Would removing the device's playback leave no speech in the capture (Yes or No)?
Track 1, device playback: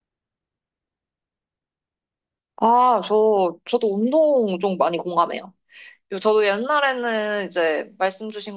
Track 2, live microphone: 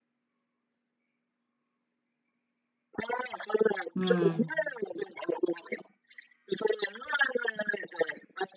No